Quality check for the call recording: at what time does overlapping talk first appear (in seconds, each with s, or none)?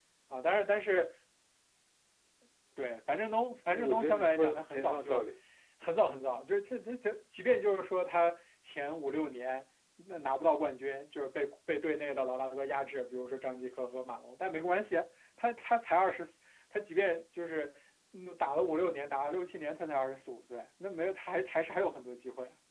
3.7 s